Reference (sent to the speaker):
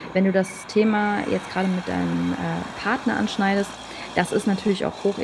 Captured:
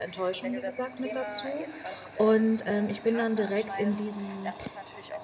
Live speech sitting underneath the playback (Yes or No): No